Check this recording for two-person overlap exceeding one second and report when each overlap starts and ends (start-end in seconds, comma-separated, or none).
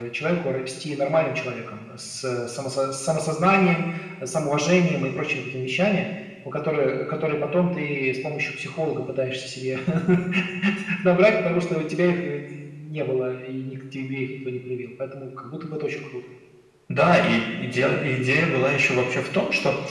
none